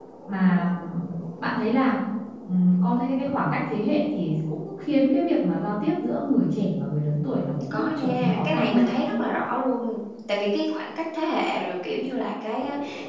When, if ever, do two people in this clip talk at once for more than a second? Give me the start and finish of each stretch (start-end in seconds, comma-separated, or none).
7.7-8.9